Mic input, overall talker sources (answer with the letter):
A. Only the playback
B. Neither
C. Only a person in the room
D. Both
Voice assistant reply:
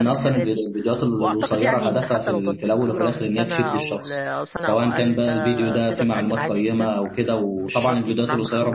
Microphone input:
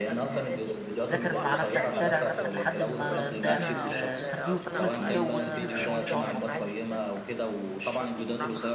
D